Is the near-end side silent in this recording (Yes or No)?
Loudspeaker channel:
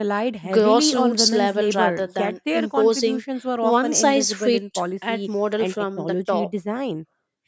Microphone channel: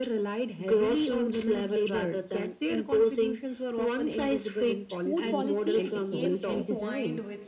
No